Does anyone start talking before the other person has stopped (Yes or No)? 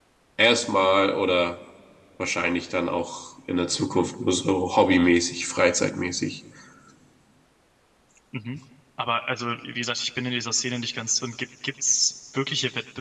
No